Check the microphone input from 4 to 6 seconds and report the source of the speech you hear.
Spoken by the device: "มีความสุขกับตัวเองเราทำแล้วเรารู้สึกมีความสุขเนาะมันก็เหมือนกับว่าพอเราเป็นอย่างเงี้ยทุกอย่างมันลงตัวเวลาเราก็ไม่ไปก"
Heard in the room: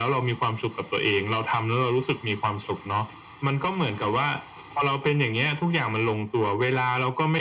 echo only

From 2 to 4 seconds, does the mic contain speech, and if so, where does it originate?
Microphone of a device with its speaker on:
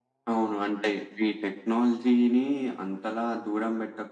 echo only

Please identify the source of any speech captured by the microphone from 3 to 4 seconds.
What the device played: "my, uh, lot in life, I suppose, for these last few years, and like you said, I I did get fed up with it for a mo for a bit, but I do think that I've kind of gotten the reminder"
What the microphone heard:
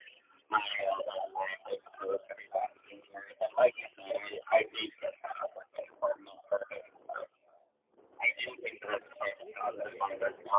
echo only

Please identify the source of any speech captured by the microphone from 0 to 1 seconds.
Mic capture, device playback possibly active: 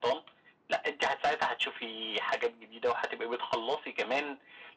echo only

